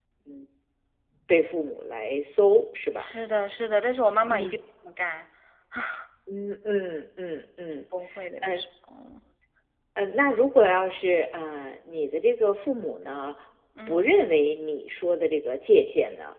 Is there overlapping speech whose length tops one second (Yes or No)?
No